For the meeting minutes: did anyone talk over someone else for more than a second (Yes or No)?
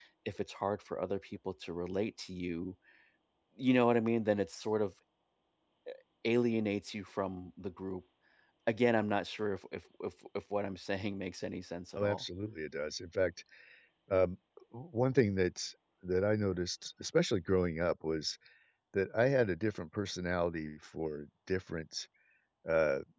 No